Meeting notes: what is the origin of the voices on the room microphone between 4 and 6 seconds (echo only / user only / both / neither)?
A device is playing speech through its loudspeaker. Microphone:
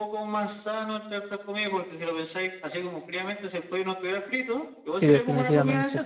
both